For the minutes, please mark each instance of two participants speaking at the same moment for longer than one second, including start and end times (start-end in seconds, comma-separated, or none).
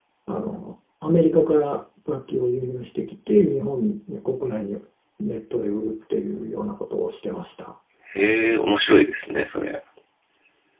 none